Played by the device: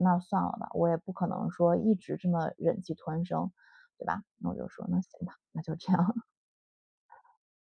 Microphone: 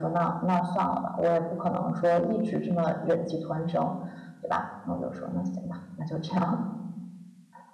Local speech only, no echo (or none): none